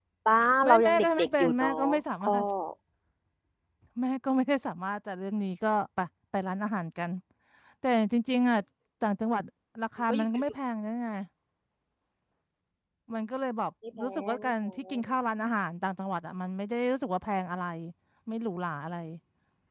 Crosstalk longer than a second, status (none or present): present